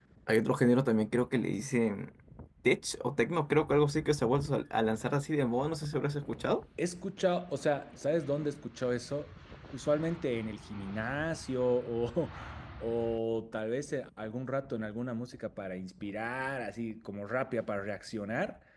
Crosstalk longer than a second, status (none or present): none